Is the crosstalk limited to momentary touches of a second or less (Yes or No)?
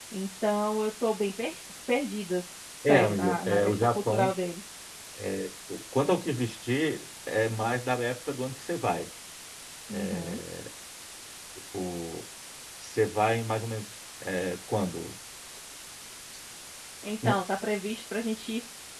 No